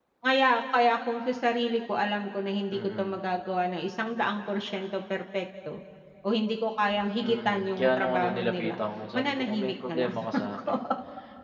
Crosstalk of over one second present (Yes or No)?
Yes